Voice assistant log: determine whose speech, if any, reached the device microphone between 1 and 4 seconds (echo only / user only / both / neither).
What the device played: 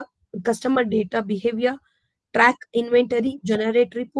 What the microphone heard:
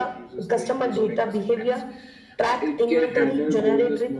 both